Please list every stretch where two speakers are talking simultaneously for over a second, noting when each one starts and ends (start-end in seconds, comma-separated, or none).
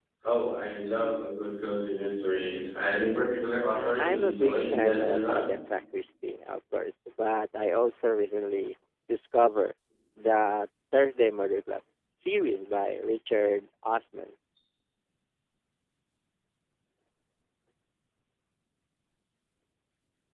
3.7-5.5